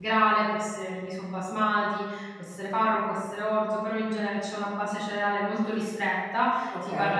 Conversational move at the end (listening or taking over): listening